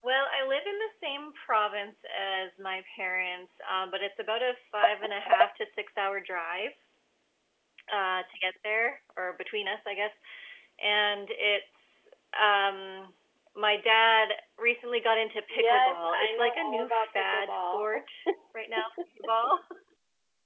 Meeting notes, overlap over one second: present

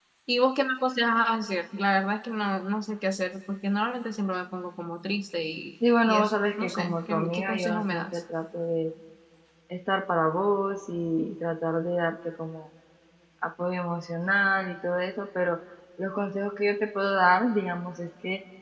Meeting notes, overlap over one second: present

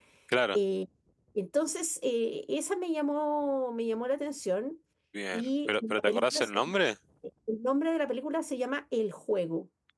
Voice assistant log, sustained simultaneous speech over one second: present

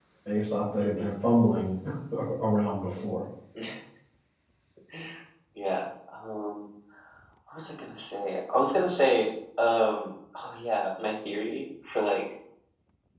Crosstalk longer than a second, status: none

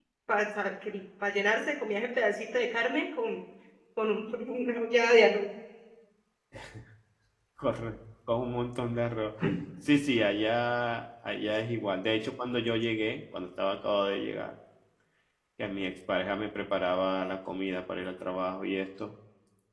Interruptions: none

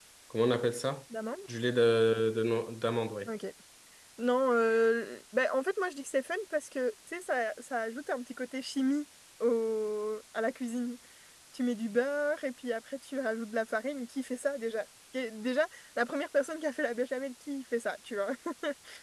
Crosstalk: none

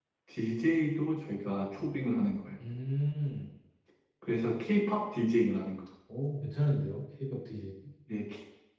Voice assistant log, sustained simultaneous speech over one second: none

